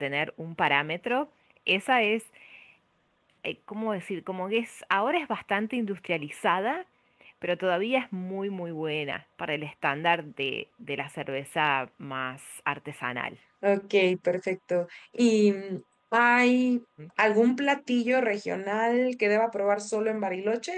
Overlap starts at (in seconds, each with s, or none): none